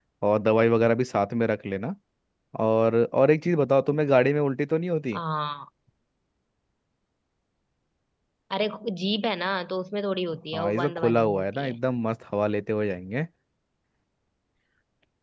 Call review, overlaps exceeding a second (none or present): present